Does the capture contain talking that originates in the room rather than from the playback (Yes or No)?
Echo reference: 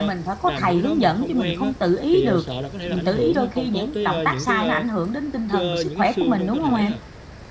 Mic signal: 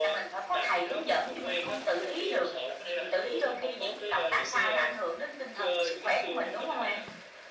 No